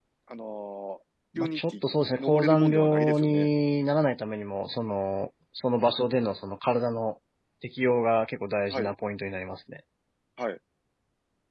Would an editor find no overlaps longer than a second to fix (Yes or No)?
No